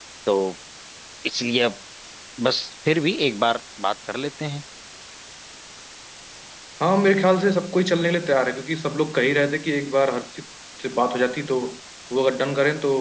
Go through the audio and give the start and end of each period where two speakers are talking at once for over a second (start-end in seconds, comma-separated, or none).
none